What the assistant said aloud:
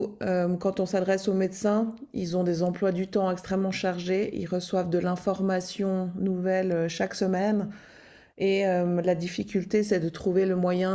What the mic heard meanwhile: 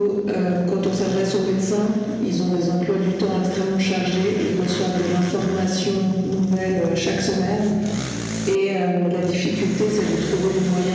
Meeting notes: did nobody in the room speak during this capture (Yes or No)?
Yes